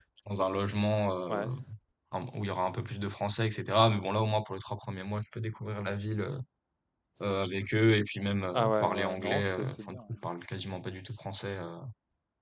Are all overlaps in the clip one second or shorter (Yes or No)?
No